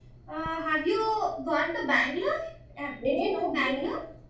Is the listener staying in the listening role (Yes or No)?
No